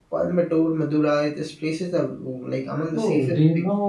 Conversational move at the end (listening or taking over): taking over